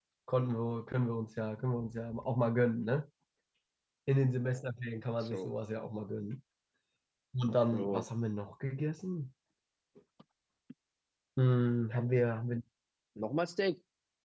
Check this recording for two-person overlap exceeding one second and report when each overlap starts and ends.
none

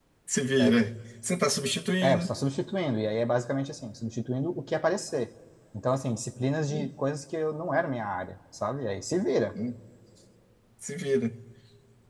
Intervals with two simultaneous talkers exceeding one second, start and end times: none

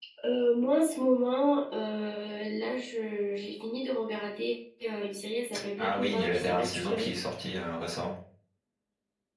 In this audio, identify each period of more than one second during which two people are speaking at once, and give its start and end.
5.8-7.1

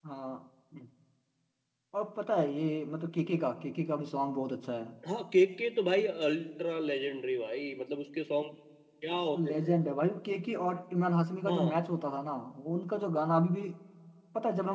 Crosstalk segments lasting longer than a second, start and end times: none

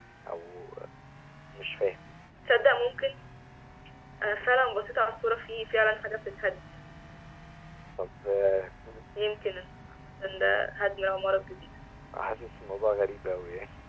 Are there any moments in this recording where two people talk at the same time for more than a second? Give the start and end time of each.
none

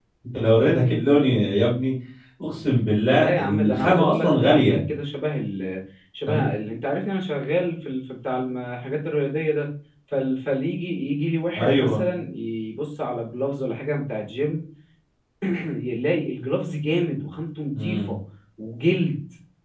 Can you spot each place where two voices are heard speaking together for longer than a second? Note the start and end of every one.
3.2-4.8

